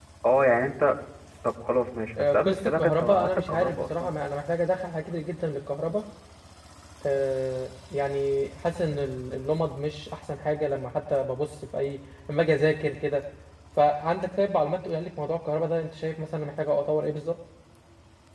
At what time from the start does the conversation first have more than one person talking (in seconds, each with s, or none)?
2.2 s